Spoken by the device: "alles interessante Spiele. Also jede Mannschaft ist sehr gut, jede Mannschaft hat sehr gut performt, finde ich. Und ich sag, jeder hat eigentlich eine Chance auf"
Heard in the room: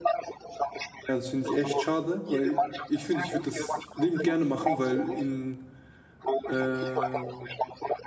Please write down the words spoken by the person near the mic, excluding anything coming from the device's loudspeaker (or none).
Ja, das finde ich echt schade, weil ich finde, ich würde das liebend gerne machen, weil in ähm,